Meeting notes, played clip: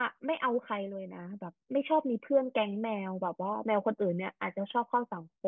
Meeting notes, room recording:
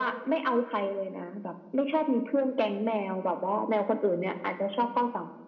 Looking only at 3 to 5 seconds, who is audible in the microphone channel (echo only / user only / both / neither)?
echo only